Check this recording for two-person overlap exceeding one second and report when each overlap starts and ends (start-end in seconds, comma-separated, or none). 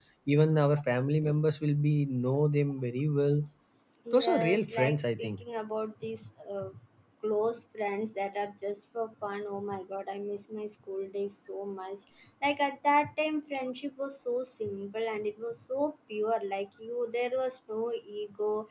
4.1-5.3